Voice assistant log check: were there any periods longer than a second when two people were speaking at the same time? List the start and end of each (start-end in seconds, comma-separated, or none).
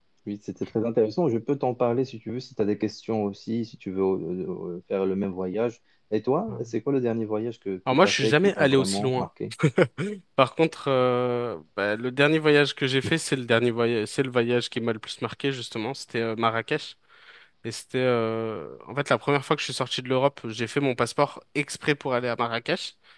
8.0-9.3